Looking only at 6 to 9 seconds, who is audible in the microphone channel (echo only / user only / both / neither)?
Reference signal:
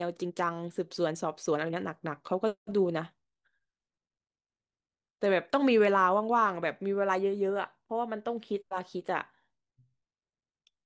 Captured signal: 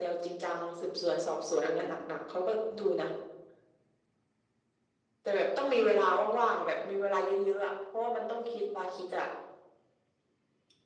echo only